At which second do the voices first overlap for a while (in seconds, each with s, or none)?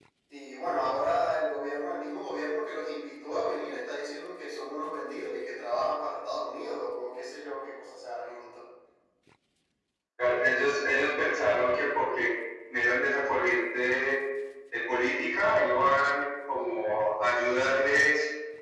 none